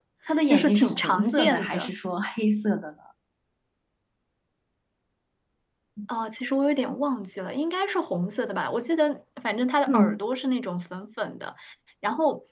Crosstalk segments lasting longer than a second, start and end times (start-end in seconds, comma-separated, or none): 0.5-1.9